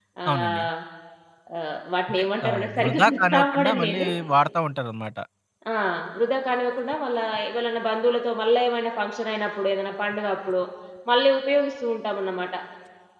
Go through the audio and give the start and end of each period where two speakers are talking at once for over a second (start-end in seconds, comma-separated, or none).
2.1-4.1